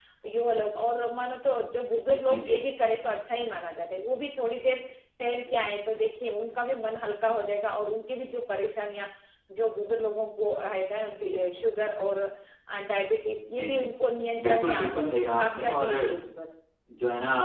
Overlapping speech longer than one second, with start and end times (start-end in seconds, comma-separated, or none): 14.4-15.9